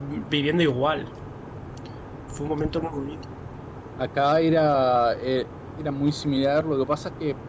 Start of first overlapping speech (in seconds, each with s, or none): none